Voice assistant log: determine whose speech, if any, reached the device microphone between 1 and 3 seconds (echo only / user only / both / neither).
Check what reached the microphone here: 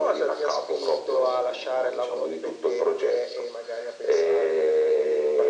echo only